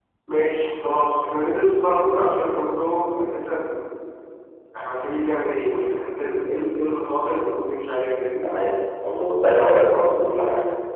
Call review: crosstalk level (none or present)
none